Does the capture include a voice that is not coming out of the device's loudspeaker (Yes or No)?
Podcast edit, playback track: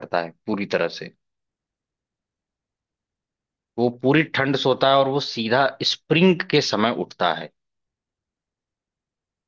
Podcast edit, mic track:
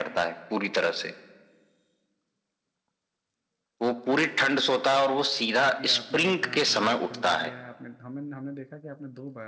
Yes